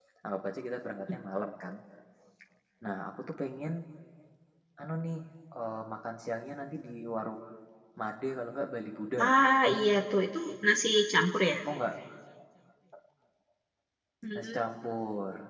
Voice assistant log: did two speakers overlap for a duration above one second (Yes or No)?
No